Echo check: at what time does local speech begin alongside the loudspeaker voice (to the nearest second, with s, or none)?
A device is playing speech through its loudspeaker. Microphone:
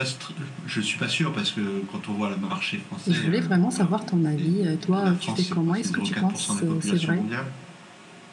3 s